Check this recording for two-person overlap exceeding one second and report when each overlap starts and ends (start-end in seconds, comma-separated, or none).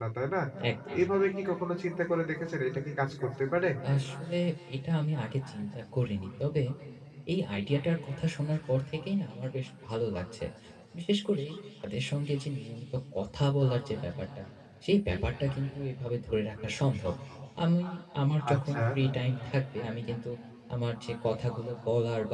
none